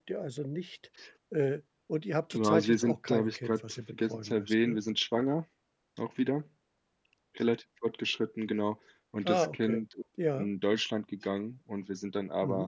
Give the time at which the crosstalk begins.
2.3 s

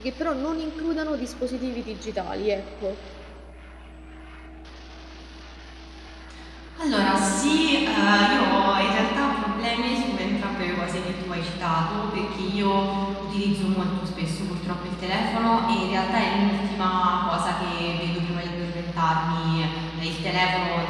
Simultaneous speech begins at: none

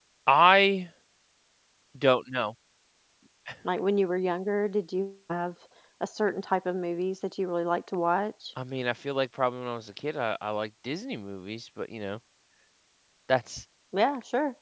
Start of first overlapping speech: none

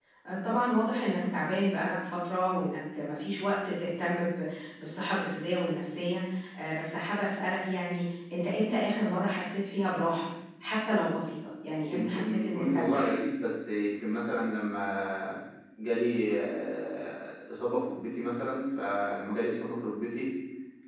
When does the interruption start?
11.8 s

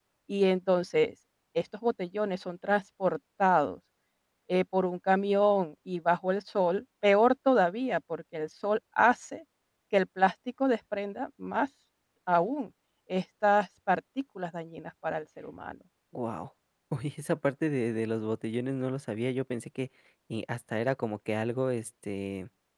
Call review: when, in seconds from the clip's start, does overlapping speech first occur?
none

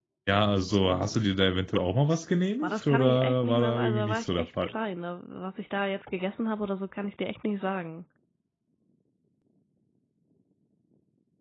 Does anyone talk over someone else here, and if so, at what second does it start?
2.6 s

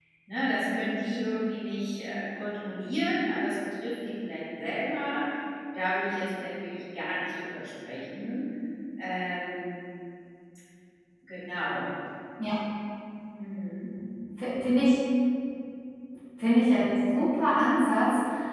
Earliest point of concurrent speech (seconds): none

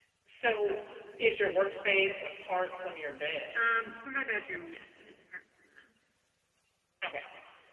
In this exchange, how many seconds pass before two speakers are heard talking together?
none

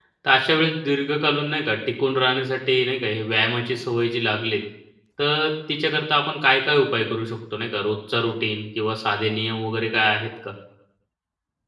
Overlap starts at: none

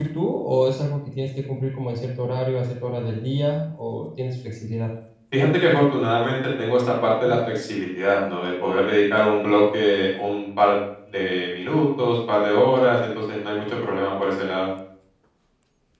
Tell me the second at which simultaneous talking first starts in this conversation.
none

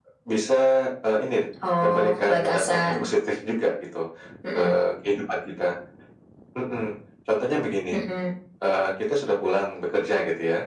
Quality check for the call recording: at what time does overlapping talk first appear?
1.8 s

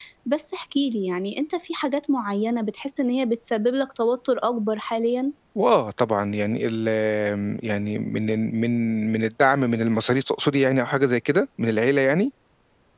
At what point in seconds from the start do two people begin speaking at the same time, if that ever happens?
none

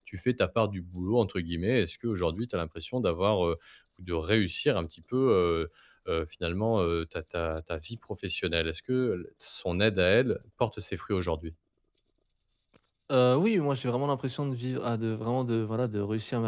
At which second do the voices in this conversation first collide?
none

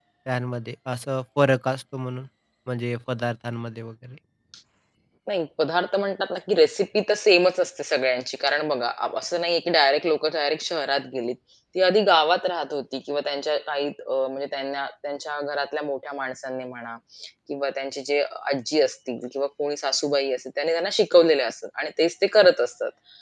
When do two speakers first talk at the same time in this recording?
none

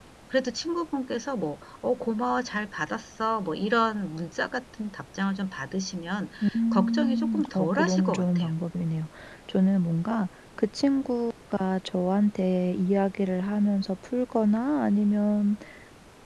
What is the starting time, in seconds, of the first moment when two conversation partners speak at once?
6.7 s

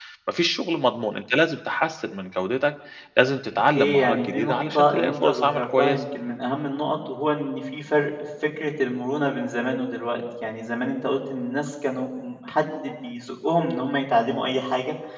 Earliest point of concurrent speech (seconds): 3.7 s

